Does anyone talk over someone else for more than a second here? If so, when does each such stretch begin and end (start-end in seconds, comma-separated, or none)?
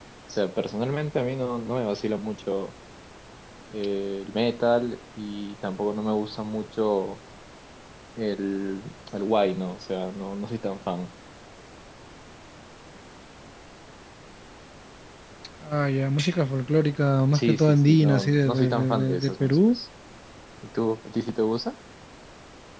17.3-19.8